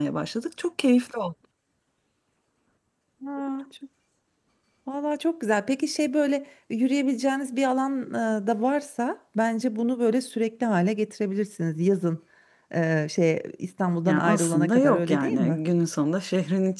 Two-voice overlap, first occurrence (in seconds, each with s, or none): 14.1 s